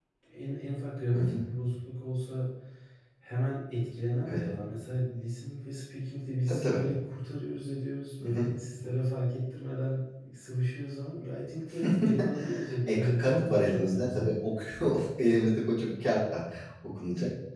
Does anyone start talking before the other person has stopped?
Yes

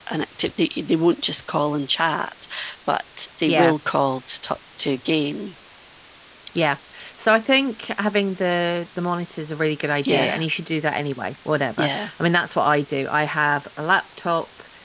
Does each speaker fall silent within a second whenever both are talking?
Yes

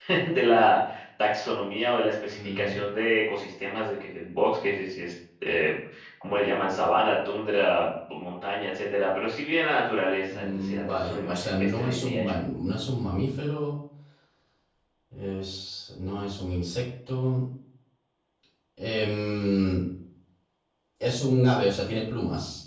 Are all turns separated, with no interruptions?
No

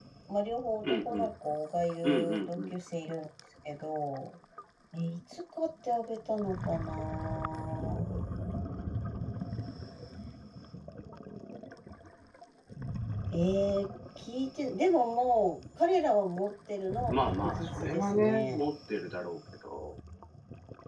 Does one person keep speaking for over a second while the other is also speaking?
Yes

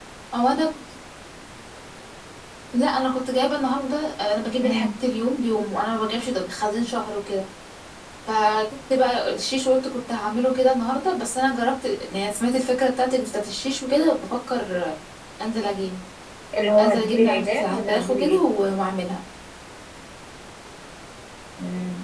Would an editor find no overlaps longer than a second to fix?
No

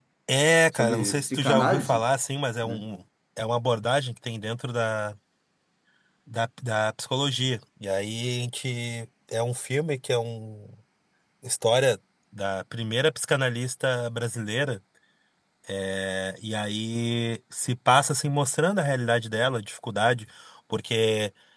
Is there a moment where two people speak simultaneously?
Yes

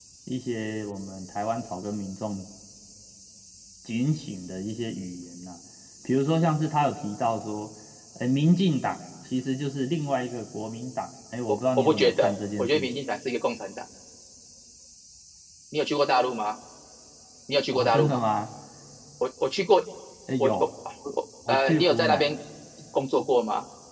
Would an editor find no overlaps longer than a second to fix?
No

